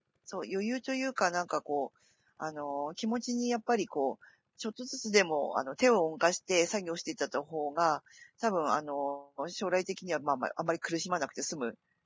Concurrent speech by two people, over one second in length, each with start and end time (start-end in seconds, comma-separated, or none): none